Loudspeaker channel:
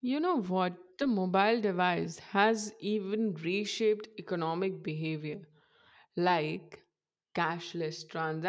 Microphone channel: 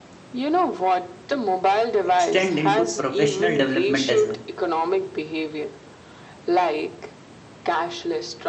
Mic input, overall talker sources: both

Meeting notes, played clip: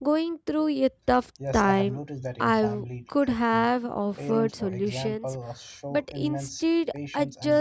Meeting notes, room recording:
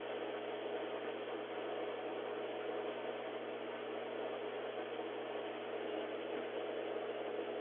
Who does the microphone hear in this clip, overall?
neither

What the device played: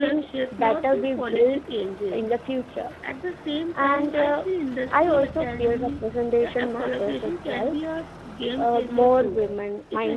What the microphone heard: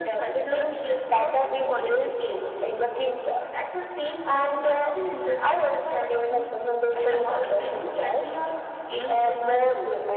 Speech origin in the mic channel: echo only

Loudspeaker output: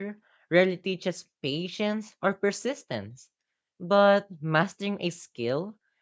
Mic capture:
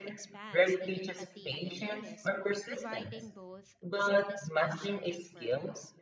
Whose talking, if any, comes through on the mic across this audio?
both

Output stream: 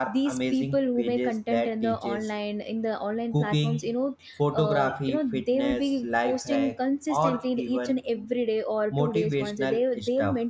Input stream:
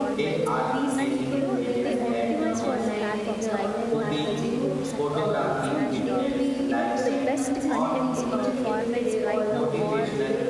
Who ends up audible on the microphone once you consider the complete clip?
both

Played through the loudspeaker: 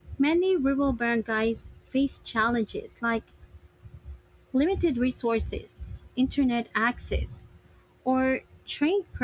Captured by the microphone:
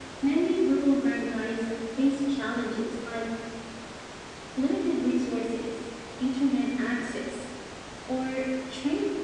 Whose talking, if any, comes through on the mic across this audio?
echo only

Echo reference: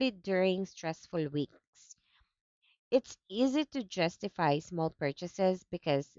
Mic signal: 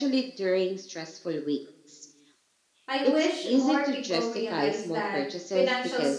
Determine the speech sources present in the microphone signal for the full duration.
both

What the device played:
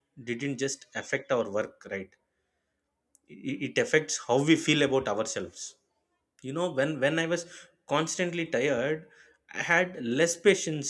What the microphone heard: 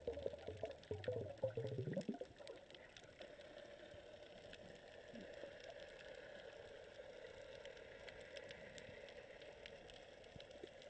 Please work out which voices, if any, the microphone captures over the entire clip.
neither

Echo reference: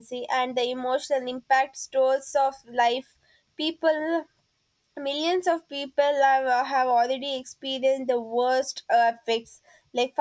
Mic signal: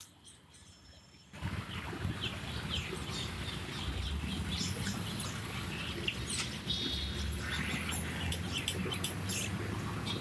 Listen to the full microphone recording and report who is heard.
neither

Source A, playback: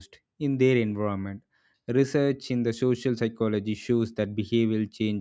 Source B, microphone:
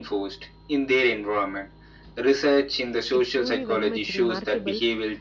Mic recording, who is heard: both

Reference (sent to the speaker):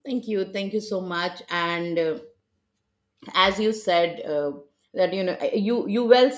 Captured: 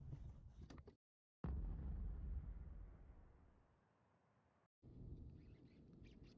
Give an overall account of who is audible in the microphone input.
neither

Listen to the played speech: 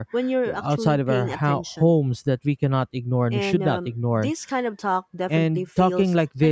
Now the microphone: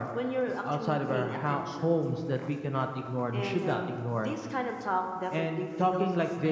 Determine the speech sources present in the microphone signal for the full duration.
echo only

